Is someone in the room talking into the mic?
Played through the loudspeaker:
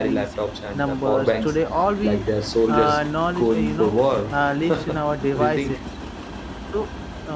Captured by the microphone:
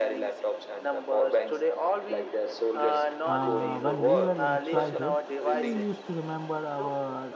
Yes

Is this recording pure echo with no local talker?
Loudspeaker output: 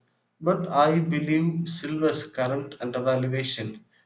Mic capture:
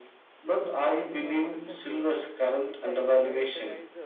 No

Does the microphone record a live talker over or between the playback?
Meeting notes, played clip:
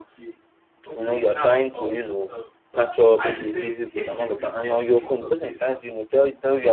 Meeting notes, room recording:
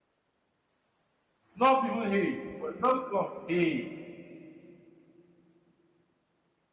Yes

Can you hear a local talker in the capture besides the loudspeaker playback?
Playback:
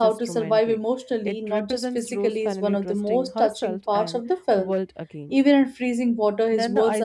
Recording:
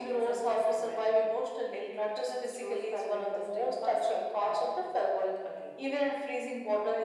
No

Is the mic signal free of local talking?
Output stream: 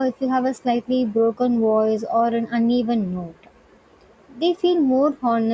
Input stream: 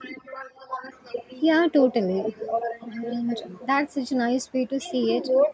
No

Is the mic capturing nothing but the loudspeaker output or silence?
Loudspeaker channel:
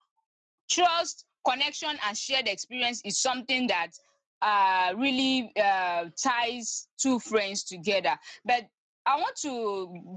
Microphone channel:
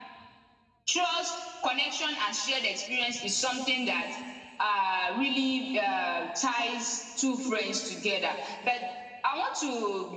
Yes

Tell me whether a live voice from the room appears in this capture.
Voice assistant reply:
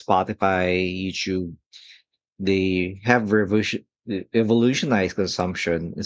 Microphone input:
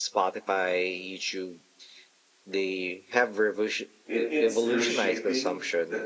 Yes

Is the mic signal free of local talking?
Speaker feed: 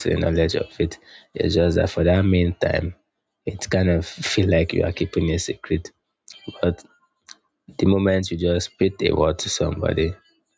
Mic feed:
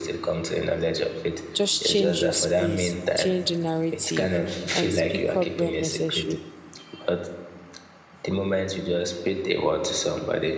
No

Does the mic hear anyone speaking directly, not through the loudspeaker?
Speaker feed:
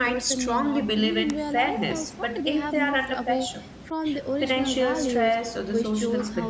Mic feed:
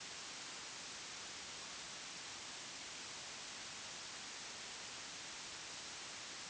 No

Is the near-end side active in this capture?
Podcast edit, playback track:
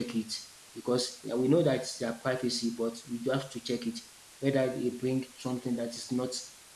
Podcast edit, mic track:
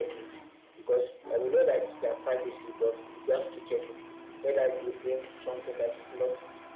No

